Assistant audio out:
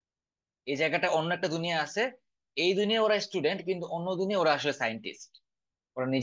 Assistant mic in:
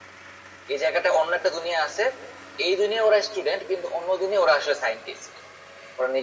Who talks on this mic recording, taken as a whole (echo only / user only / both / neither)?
echo only